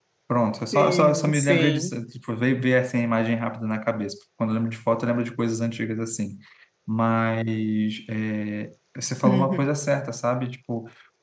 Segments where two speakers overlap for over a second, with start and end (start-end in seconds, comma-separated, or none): 0.7-1.9